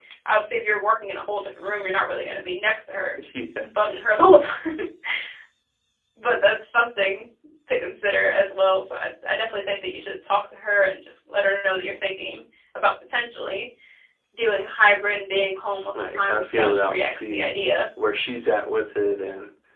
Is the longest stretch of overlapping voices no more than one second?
No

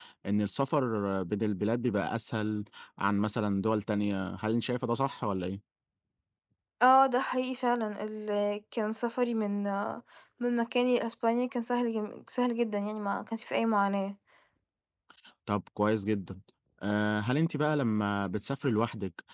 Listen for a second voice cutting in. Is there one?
No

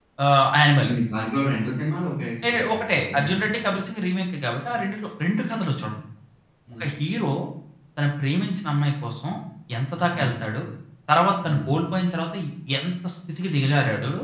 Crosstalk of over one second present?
Yes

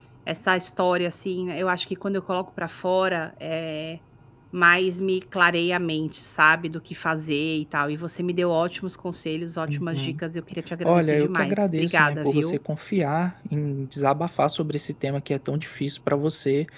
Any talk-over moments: Yes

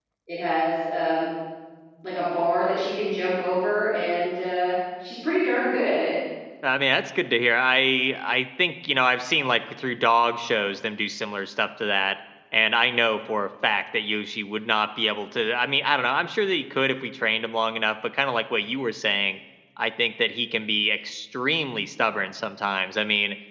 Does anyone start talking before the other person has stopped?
No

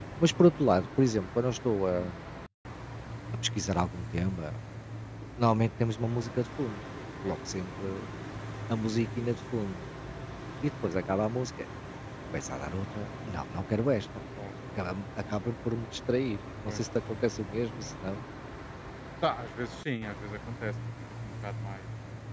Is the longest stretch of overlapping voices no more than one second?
Yes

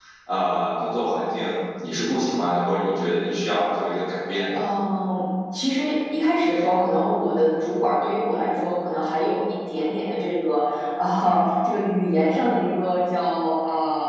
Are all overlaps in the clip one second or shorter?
Yes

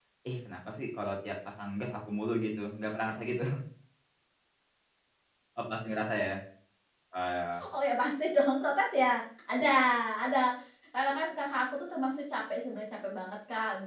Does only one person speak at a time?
Yes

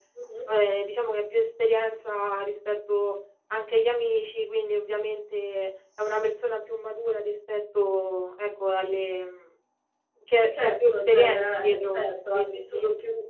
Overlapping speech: Yes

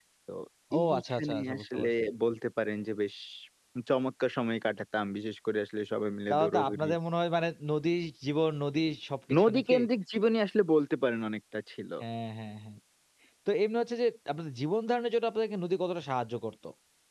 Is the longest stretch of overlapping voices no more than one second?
No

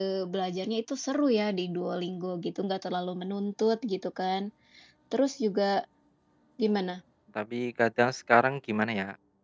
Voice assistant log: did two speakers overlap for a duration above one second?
No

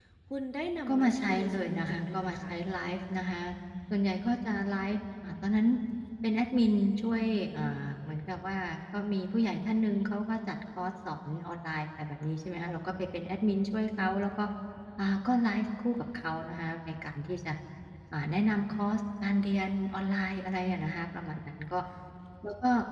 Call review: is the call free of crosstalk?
No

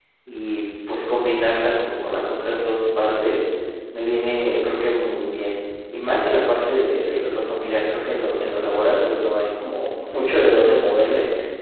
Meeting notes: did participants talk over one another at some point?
No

